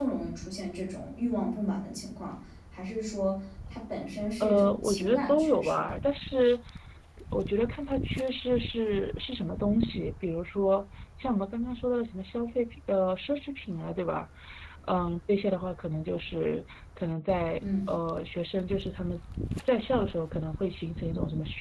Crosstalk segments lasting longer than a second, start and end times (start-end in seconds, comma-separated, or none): 4.4-6.0